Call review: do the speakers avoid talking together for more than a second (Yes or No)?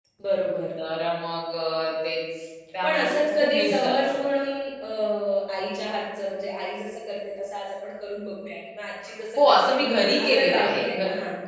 No